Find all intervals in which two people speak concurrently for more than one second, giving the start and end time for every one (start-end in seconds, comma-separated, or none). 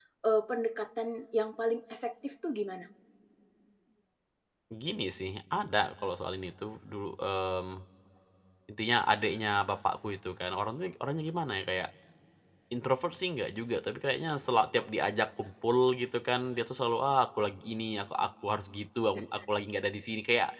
none